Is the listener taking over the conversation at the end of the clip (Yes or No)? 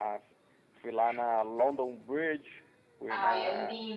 Yes